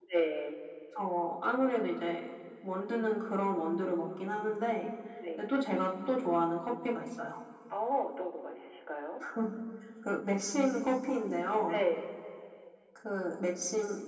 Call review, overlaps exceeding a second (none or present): none